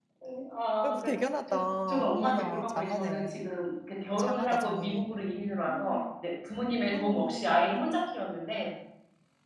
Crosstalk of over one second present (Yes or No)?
Yes